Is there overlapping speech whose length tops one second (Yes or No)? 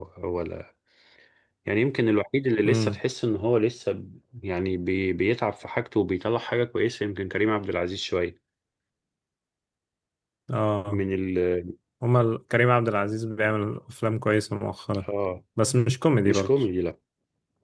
No